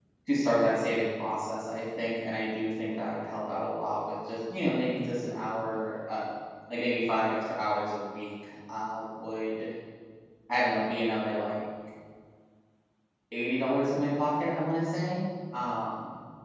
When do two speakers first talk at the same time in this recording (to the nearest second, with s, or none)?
none